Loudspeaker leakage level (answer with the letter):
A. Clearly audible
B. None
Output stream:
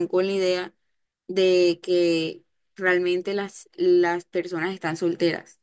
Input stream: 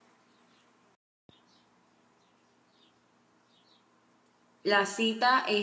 B